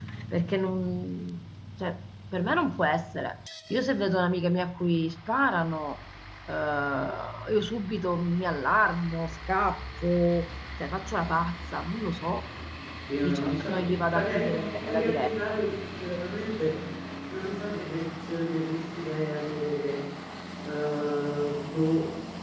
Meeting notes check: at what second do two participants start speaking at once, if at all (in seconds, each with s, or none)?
13.2 s